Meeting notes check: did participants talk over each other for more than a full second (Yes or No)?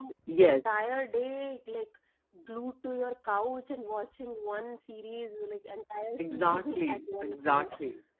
Yes